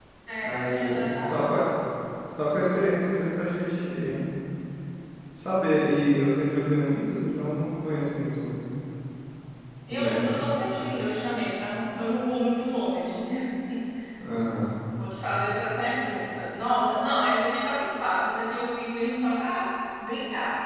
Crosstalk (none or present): present